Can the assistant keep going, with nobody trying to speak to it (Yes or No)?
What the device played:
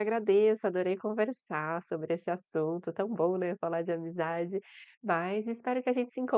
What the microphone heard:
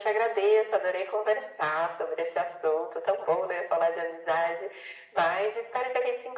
Yes